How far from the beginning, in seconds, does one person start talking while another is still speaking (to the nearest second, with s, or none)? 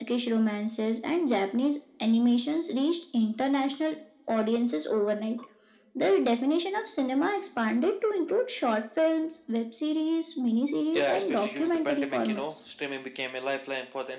11 s